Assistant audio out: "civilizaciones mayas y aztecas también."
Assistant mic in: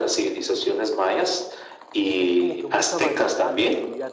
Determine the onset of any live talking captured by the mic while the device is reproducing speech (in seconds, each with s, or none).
2.2 s